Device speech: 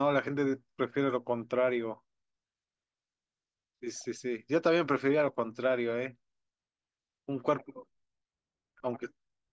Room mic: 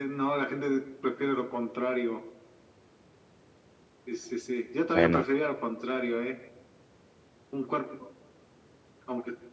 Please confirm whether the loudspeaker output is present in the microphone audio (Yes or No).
Yes